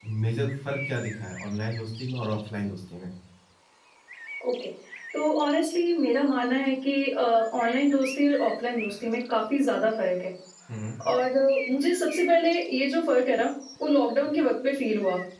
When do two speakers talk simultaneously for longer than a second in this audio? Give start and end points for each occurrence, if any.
none

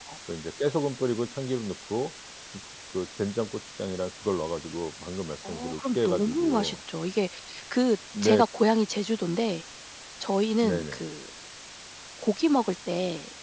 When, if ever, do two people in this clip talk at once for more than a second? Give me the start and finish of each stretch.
5.5-6.8

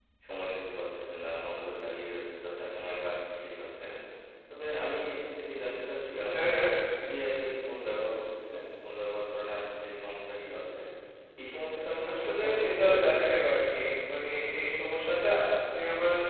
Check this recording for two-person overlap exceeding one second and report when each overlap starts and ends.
12.1-13.4

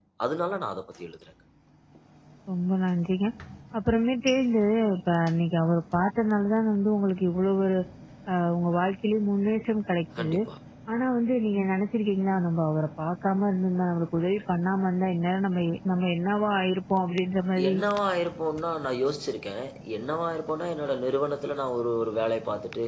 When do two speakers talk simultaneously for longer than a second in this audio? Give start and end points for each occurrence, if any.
none

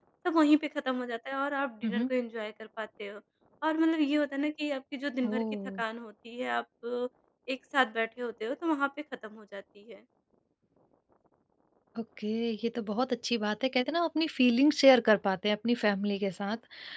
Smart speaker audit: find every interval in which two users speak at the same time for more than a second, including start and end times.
none

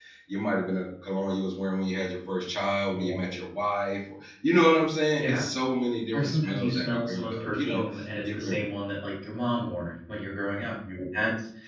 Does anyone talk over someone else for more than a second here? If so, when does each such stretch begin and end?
6.1-8.6

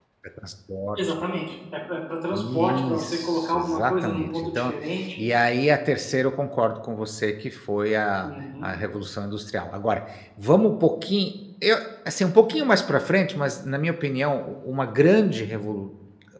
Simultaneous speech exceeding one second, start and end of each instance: 2.3-4.7

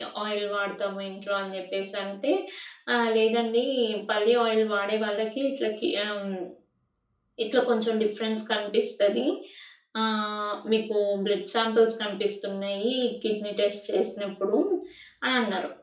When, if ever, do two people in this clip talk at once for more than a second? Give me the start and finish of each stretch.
none

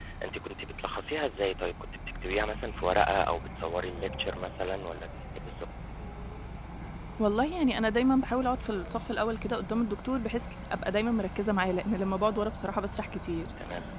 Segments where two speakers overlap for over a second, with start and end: none

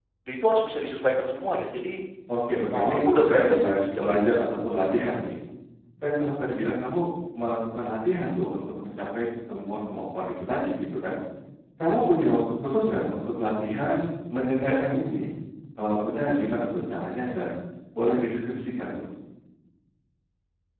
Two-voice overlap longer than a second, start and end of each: 2.7-4.4

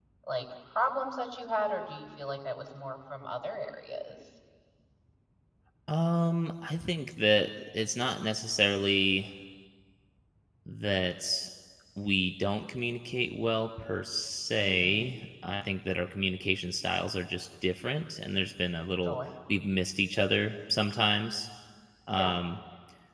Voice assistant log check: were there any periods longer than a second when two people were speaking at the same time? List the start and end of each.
none

